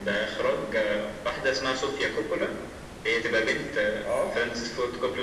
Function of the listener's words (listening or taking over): listening